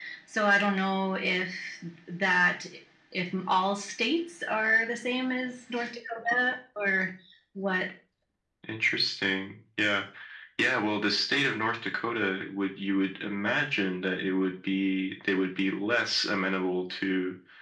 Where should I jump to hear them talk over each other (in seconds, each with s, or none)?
none